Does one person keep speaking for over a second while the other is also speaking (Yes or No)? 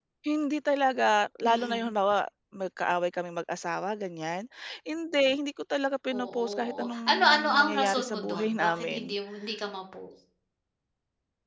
Yes